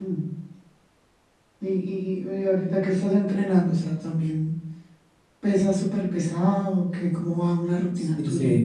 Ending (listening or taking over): taking over